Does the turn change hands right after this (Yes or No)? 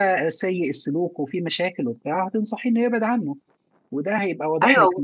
No